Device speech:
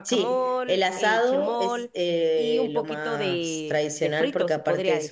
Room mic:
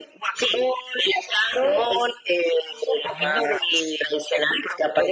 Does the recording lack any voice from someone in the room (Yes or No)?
No